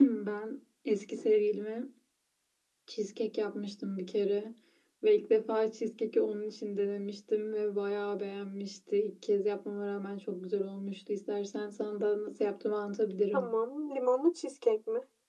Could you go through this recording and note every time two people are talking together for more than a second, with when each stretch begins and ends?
none

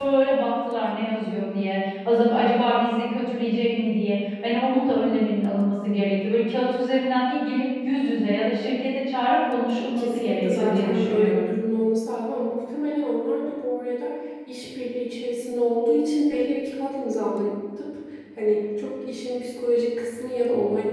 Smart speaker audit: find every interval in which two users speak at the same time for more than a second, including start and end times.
10.0-11.5

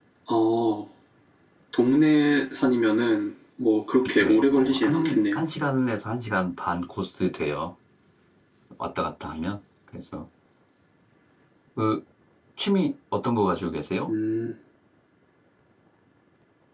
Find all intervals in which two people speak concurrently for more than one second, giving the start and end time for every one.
4.2-5.4

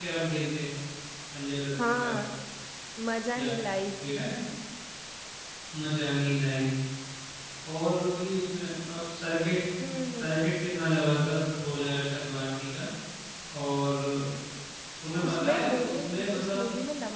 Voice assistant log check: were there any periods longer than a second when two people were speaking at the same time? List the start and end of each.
15.2-16.6

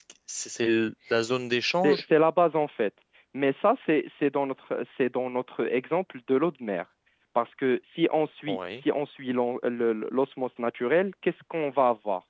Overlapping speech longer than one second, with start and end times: none

